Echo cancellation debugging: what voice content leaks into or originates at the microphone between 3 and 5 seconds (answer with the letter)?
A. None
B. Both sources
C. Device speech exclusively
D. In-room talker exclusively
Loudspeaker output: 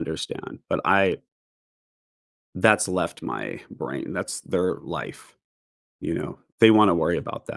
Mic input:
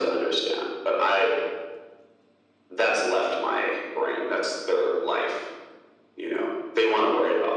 C